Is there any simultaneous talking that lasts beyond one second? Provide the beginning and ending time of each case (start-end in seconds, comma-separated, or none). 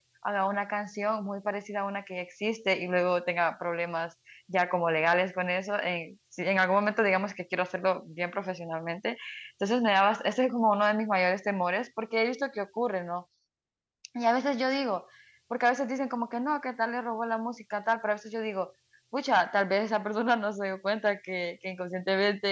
none